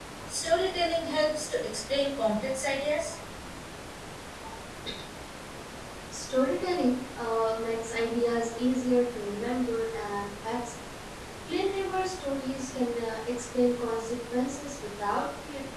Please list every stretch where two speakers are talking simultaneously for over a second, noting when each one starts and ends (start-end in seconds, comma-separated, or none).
none